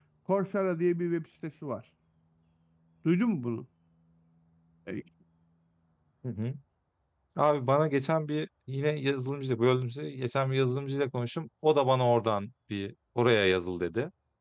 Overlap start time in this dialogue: none

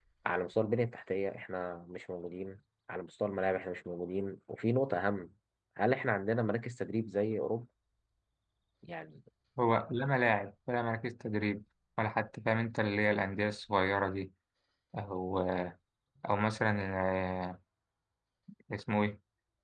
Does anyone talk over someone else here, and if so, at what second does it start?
none

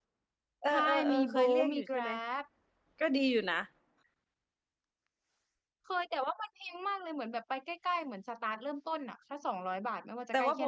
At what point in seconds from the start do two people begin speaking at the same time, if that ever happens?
1 s

